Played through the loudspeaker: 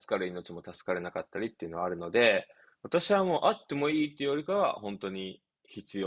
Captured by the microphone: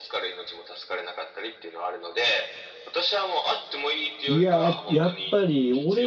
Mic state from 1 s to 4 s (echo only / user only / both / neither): echo only